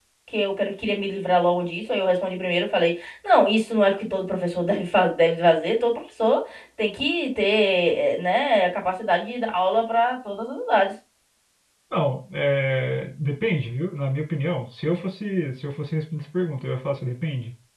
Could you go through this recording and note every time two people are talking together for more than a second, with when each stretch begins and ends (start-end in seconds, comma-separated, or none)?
none